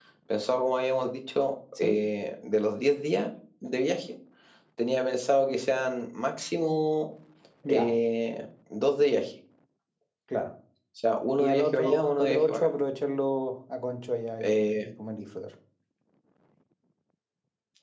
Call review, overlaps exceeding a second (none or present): present